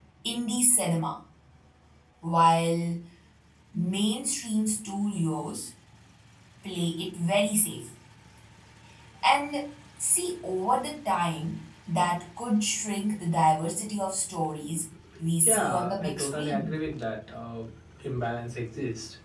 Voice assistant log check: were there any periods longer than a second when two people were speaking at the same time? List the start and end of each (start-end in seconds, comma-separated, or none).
15.4-16.7